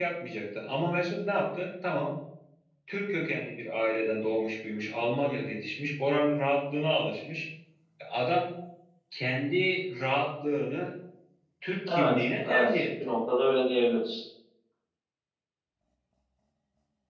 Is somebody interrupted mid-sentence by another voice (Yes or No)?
Yes